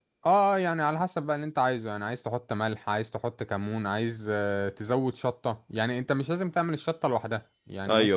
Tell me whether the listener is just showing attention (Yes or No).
Yes